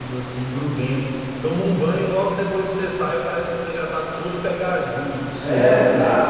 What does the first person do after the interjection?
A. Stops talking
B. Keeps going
A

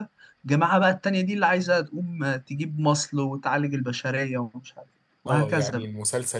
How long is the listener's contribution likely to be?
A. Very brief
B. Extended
B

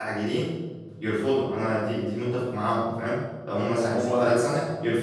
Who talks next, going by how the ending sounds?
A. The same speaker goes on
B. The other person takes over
A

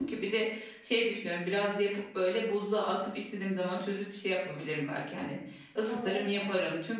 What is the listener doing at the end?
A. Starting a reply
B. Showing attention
B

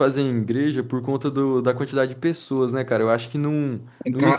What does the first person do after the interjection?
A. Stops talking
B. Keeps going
A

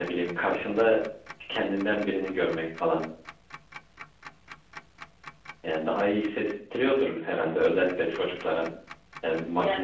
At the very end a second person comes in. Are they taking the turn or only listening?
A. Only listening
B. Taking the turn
A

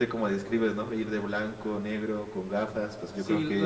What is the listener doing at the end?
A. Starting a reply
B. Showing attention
A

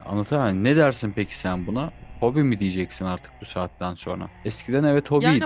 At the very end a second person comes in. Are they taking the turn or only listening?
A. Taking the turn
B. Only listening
A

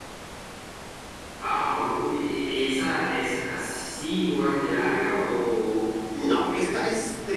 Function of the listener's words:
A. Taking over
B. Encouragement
A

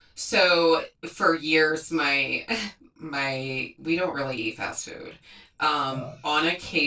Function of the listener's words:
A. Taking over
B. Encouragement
B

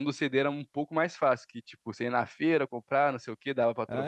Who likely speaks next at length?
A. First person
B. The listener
B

